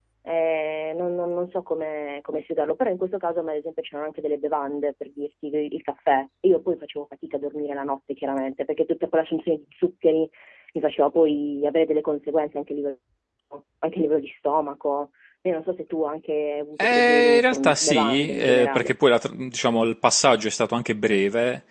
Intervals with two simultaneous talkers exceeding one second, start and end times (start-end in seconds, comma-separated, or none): 16.8-18.9